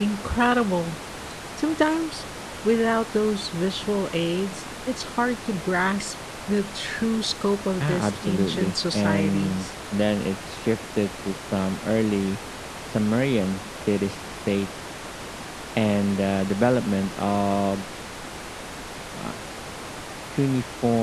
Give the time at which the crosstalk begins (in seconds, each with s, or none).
7.8 s